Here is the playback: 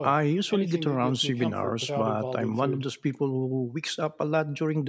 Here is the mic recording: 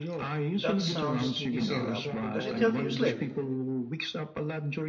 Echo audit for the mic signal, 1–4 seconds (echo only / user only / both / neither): both